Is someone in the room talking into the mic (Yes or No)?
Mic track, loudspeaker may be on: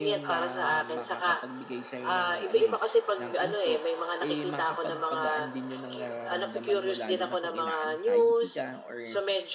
Yes